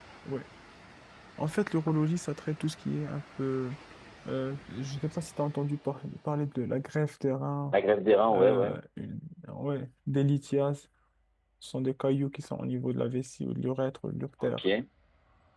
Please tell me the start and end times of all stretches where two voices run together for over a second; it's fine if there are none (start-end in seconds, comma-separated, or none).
none